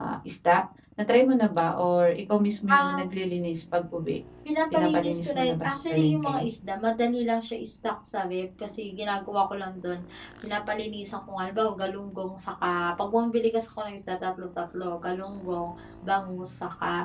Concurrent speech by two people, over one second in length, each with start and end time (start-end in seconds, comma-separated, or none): 4.7-6.5